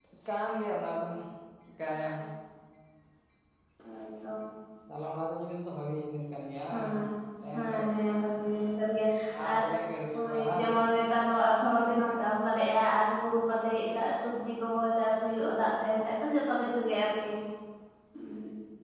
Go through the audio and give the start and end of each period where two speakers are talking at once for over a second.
none

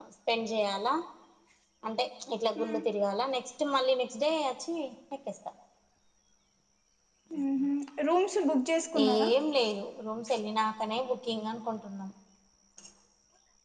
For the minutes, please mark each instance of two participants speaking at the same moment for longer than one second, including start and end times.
none

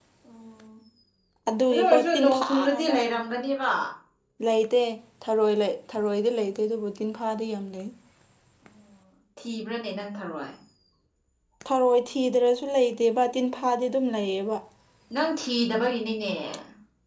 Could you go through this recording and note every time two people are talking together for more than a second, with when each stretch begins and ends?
1.7-2.9

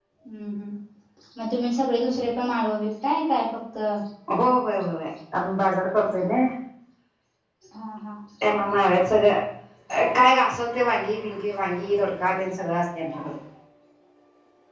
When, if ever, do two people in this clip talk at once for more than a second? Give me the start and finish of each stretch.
none

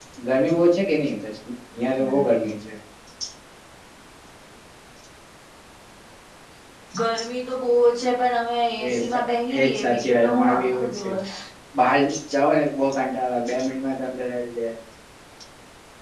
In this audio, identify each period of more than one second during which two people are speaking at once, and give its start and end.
9.6-11.1

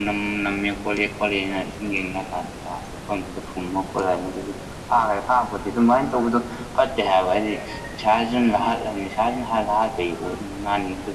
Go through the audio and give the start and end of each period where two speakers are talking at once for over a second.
none

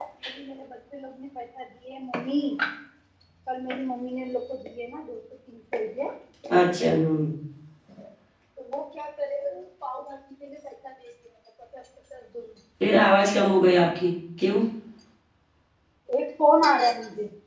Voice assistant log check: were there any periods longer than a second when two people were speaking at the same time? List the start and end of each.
none

